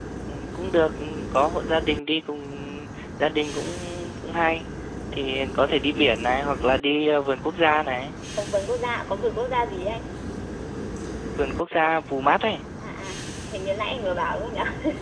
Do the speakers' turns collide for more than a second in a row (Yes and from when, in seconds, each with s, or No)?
No